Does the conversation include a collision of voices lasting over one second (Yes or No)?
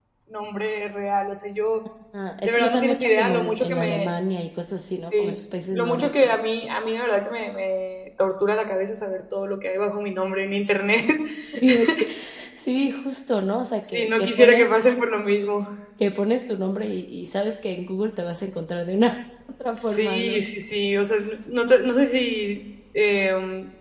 Yes